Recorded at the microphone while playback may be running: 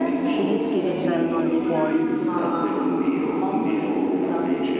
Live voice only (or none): i rischi che c'erano al di fuori